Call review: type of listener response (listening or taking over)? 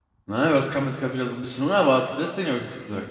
taking over